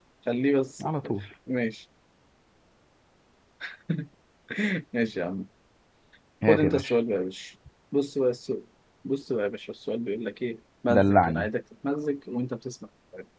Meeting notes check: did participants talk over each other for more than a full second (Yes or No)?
No